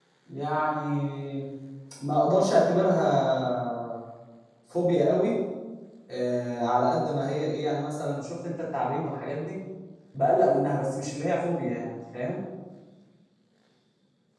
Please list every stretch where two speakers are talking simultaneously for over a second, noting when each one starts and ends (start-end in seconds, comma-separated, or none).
none